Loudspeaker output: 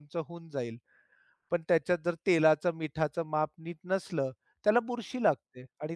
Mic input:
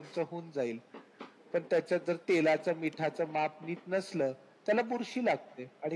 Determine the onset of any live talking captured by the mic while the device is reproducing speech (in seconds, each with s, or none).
none